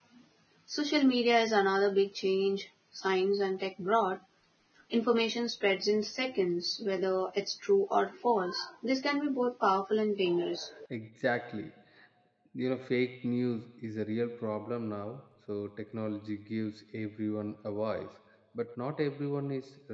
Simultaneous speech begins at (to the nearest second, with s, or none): none